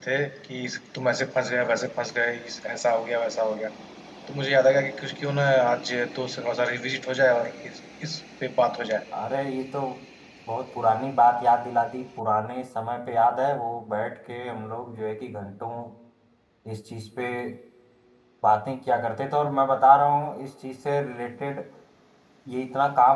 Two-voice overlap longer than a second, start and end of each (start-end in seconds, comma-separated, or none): none